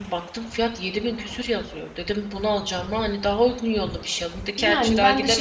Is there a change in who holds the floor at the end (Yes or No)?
Yes